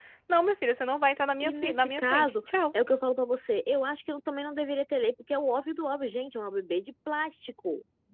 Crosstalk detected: Yes, from 1.4 s

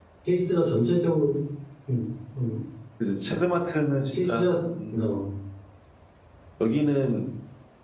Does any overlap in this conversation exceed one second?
No

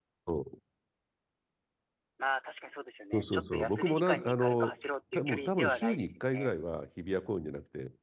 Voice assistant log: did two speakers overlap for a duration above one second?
Yes, from 3.1 s

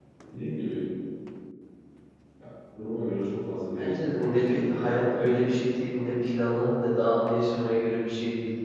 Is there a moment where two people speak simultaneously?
Yes, from 3.8 s

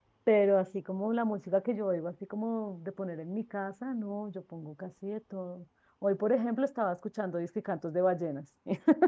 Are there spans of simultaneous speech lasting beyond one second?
No

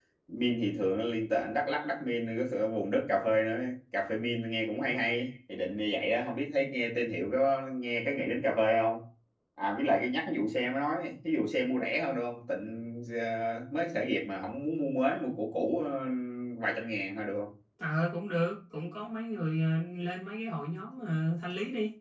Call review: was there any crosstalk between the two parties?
No

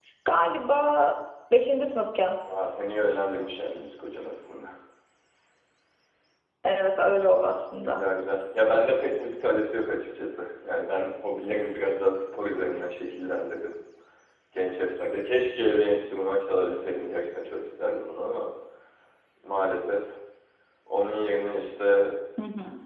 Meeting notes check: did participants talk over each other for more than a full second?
No

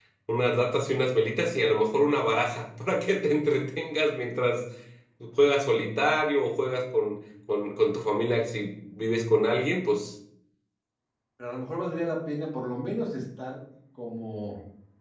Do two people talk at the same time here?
No

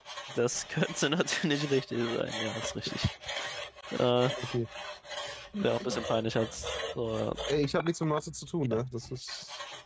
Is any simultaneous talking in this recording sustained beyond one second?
No

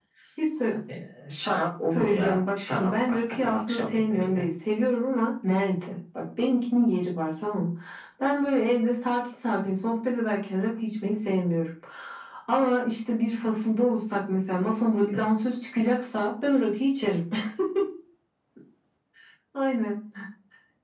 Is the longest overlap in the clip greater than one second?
Yes, from 1.9 s

